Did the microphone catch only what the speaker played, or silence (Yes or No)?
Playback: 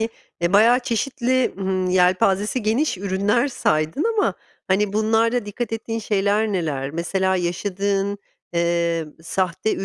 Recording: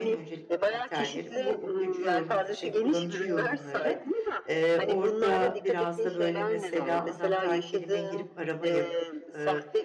No